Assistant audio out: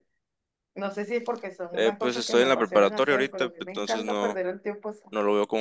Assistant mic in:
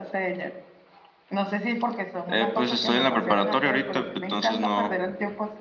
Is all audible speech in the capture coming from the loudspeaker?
Yes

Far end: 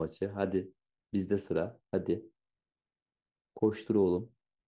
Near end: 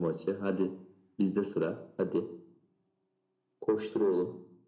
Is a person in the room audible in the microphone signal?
No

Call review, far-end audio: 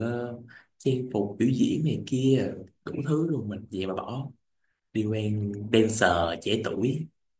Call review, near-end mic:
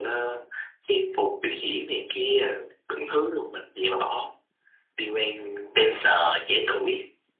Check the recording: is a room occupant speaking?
No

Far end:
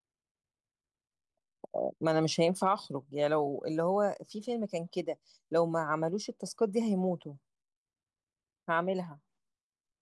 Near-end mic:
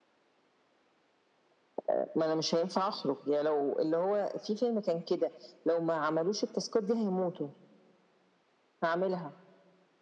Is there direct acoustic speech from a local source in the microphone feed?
No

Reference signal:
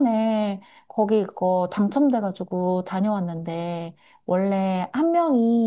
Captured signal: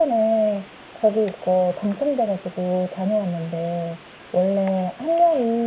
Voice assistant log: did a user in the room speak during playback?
No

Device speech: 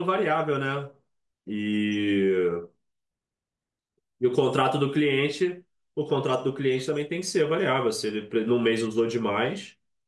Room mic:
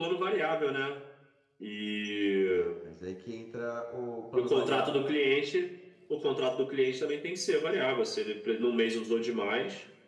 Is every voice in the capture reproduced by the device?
No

